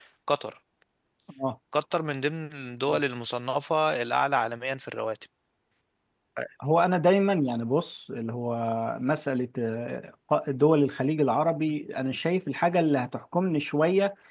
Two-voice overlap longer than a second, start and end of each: none

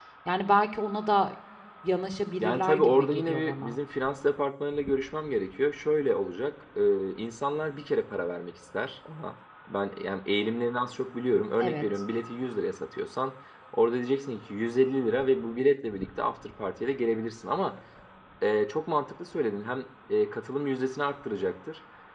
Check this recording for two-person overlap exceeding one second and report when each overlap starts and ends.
2.4-3.8

